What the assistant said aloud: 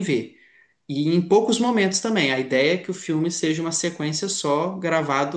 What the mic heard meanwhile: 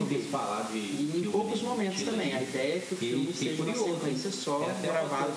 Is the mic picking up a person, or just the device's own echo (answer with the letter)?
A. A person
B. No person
A